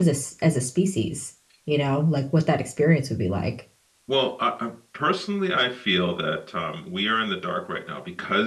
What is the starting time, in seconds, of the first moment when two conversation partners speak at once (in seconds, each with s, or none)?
none